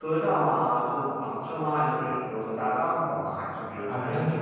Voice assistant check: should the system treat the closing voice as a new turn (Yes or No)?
Yes